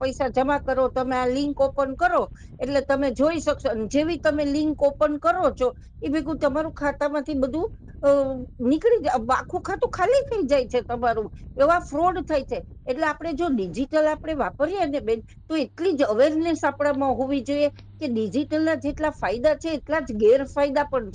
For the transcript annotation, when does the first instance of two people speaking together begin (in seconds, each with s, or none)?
none